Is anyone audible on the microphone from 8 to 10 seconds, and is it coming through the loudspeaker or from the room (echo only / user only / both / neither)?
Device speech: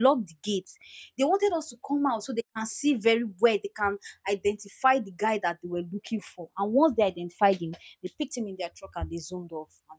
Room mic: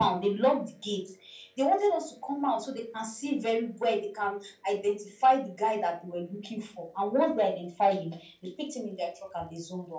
echo only